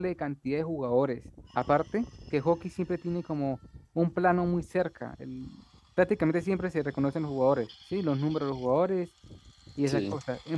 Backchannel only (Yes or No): Yes